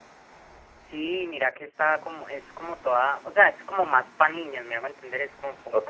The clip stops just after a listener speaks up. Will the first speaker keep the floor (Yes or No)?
No